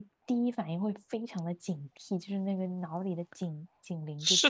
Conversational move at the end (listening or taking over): taking over